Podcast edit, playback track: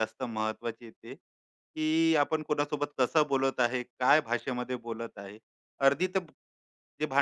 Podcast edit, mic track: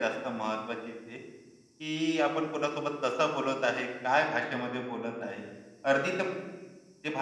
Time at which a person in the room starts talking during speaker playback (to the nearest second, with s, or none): none